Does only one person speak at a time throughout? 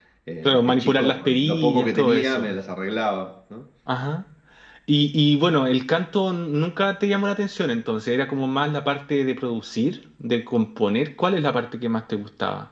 No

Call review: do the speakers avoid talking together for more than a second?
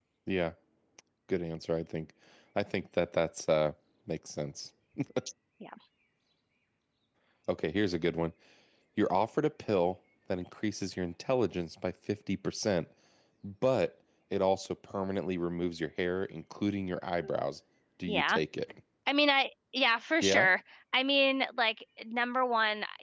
Yes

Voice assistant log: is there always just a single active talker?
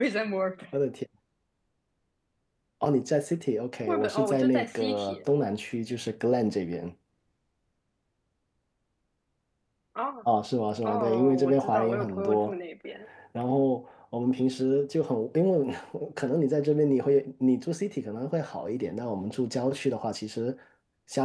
No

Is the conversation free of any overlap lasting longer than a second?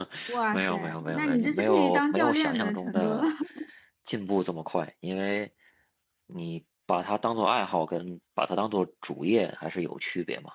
No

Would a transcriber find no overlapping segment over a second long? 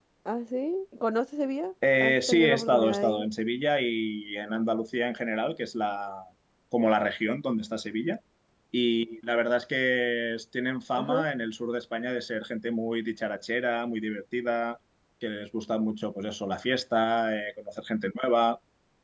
No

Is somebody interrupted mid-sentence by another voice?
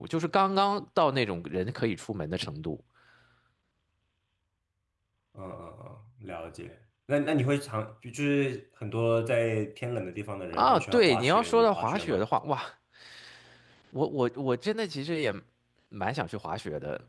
Yes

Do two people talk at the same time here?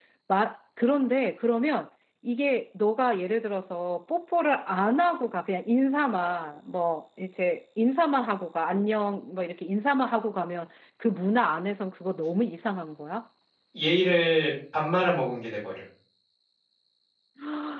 No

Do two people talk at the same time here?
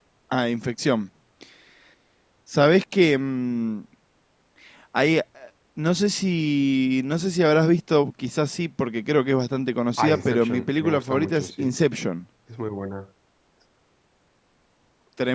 Yes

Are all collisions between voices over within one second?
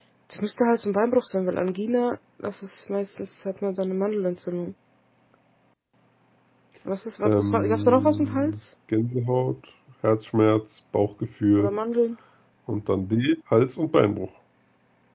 No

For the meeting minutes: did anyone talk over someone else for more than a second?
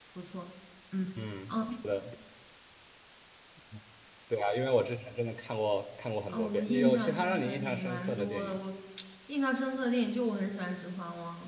Yes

